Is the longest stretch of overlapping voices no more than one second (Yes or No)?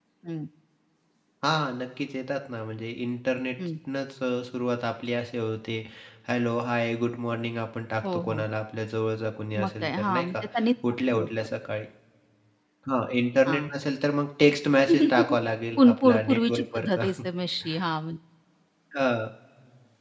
No